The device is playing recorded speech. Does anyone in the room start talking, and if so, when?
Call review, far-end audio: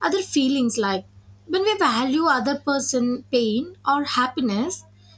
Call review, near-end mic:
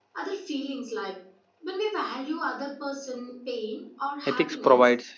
4.2 s

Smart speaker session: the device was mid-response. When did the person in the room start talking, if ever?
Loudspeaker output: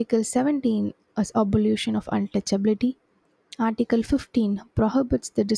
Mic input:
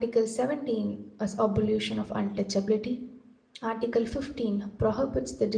none

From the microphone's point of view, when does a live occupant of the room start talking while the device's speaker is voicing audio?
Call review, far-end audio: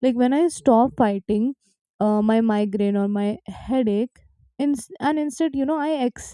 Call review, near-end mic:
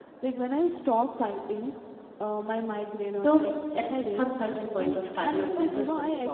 3.1 s

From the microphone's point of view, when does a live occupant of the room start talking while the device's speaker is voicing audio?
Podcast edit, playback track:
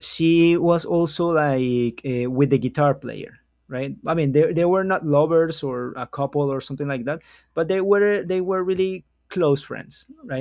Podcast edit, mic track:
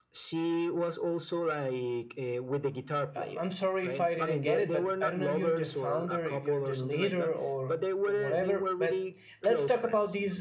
3.1 s

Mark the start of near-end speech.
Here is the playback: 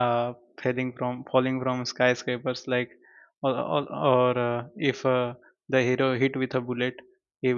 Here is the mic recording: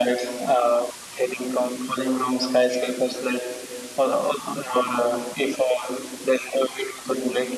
none

